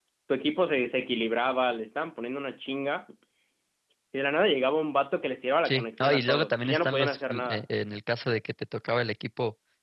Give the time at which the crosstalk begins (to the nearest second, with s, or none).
6 s